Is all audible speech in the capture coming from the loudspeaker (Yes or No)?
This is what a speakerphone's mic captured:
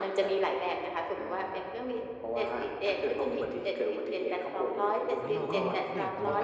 No